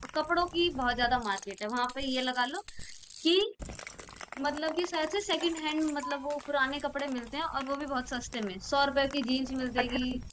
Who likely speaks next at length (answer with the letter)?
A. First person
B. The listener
B